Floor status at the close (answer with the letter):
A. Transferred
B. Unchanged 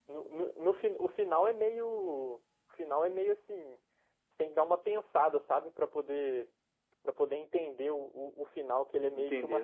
B